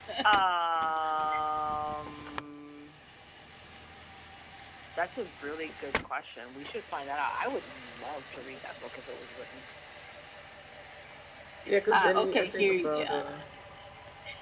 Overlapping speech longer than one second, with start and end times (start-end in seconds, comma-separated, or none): 11.9-13.2